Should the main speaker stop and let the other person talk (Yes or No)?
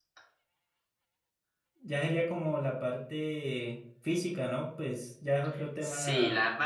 Yes